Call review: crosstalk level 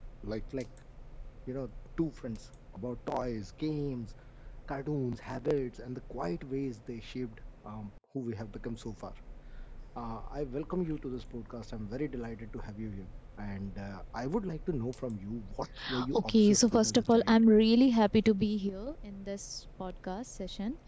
present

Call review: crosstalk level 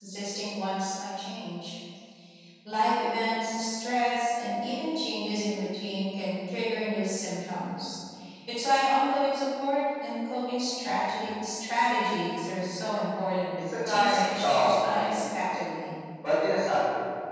present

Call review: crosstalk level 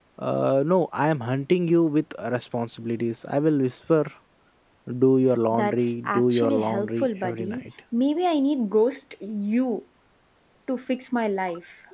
present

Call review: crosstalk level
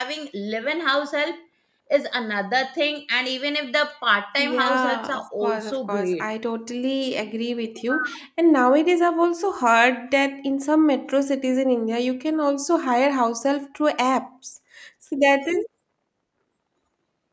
present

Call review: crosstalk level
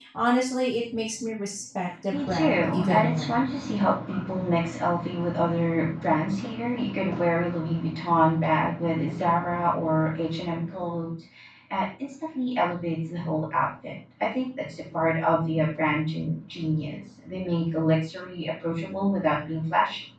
present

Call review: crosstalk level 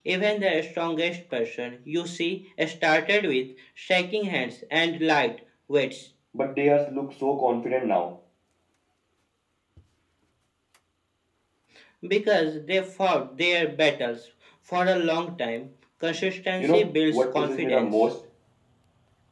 present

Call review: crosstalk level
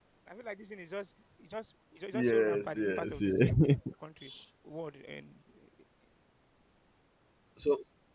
present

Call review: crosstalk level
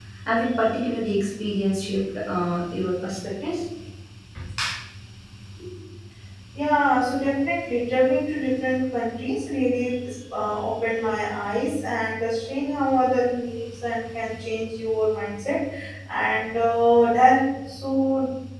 none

